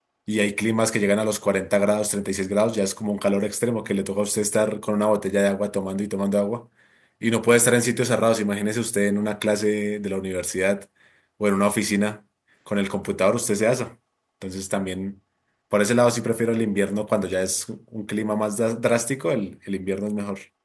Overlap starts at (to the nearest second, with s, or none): none